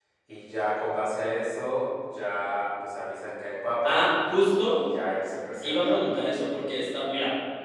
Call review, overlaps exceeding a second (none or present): none